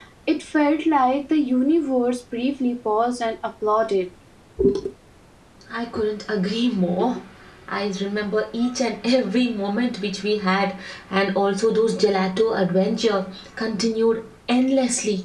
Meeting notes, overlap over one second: none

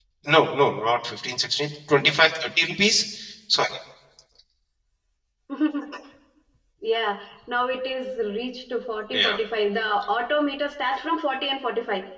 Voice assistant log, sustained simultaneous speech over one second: none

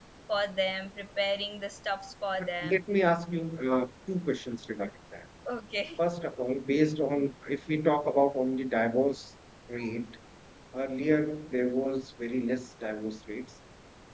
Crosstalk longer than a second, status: none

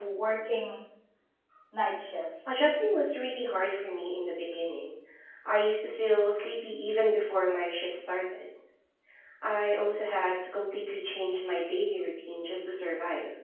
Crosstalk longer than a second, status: none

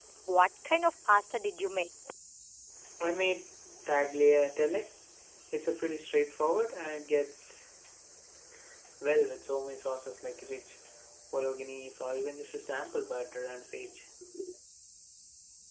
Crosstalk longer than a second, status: none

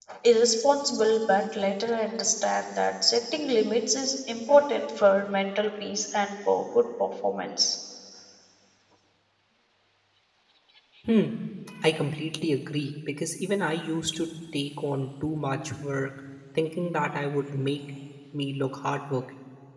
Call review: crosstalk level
none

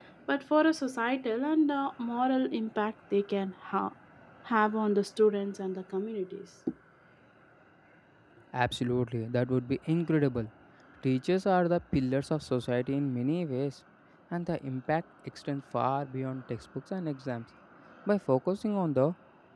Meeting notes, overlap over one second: none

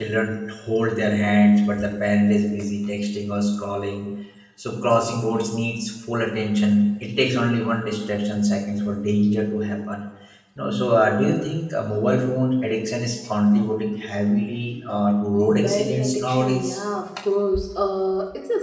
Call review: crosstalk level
present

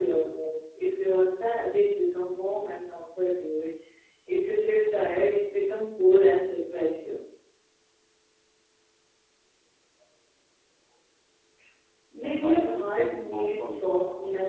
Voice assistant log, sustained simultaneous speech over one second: present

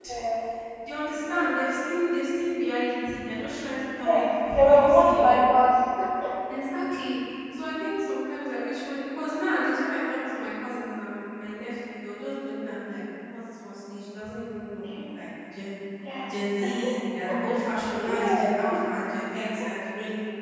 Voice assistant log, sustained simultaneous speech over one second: present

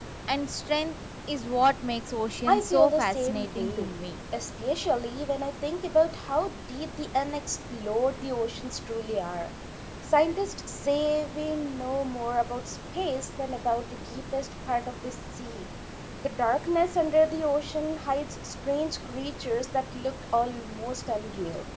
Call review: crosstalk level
present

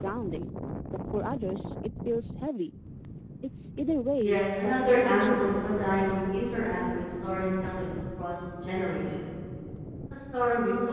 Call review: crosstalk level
present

